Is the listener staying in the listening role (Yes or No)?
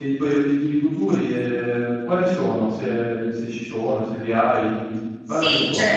No